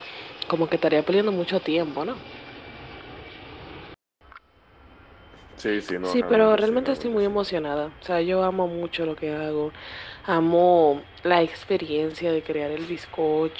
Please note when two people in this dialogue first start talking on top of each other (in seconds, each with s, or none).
6.0 s